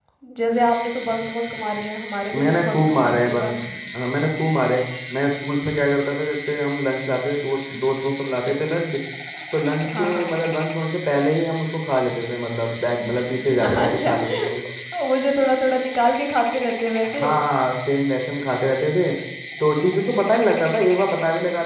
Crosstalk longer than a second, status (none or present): present